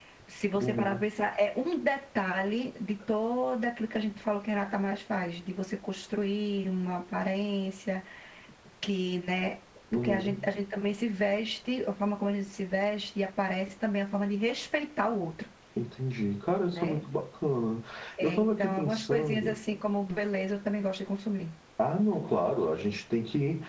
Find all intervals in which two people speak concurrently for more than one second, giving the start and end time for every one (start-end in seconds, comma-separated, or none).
18.2-19.6